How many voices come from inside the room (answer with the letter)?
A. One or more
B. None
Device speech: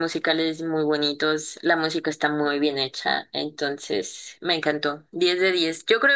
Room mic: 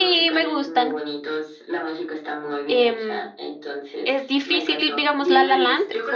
A